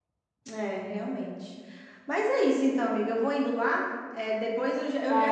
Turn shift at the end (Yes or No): No